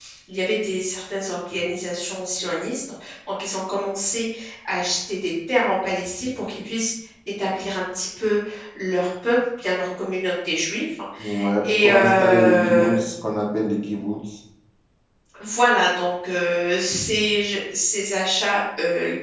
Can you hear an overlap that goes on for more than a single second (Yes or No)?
Yes